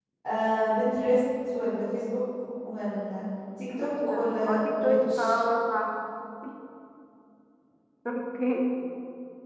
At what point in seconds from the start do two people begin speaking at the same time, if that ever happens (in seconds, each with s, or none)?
3.8 s